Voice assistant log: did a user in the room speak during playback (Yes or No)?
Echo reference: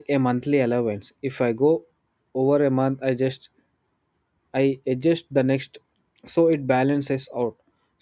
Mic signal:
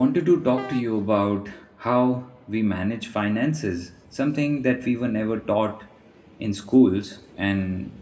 Yes